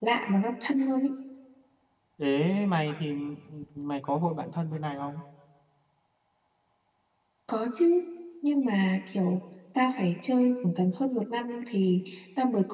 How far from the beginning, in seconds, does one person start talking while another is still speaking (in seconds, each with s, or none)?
none